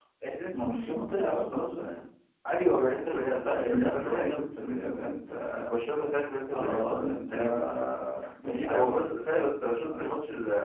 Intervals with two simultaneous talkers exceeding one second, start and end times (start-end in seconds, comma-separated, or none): 3.4-4.9